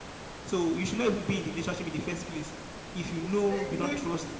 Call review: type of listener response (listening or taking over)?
taking over